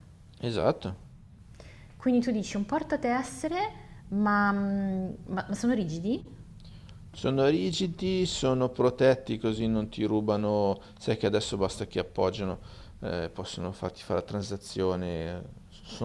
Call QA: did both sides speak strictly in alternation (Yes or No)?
Yes